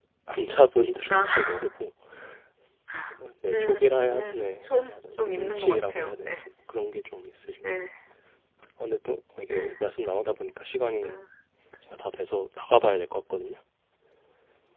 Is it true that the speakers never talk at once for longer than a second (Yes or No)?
No